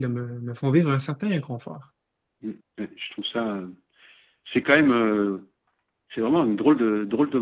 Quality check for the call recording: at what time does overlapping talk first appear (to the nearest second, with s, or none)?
none